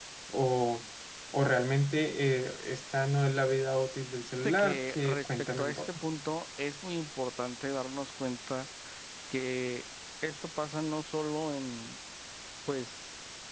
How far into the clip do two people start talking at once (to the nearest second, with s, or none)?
4 s